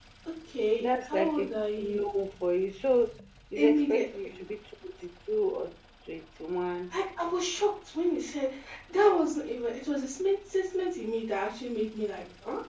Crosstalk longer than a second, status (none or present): present